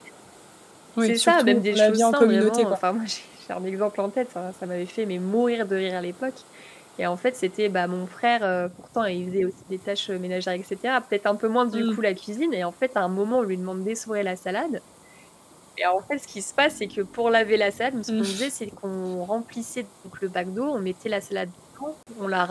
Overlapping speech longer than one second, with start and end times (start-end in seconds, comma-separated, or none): 1.0-2.8